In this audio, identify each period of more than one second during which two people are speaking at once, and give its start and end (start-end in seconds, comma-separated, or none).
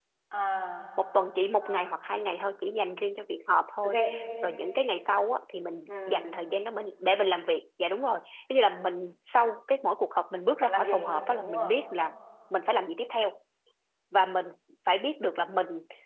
none